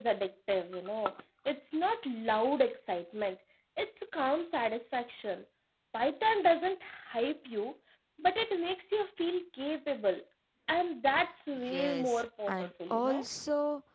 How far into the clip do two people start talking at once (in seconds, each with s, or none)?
11.6 s